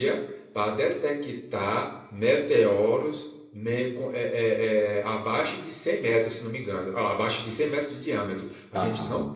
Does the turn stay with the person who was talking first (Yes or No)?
Yes